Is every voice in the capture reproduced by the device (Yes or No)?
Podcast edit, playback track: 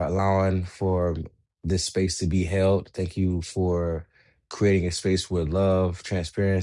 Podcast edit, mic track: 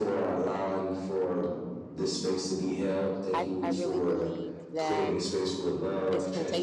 No